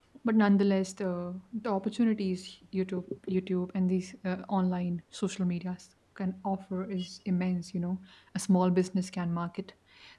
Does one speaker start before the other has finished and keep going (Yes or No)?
No